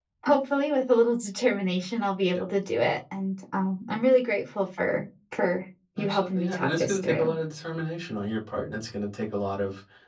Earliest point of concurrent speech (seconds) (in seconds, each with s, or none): 6.0 s